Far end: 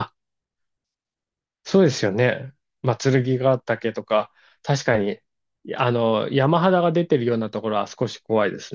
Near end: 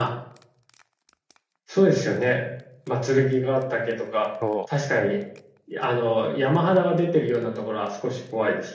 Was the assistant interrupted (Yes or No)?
Yes